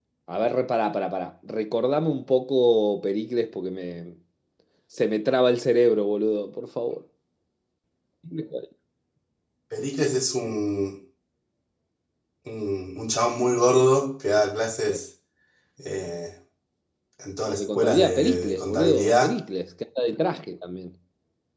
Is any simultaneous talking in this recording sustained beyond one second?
Yes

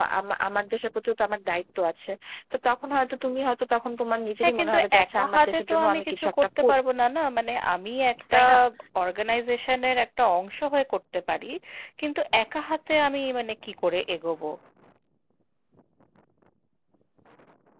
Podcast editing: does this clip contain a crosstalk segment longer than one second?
Yes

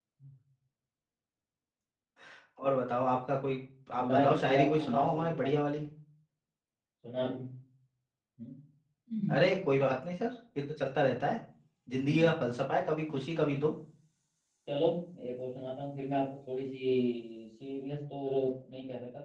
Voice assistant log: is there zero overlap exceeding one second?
No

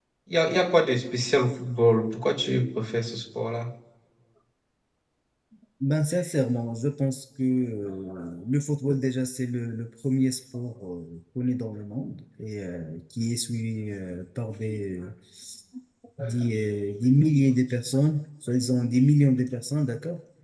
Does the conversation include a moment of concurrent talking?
No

